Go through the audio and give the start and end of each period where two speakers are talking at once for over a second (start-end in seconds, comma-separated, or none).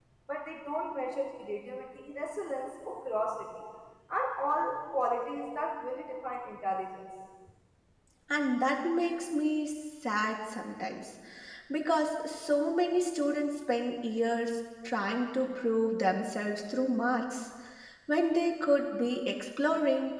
none